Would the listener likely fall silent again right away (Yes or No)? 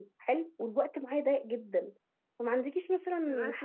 Yes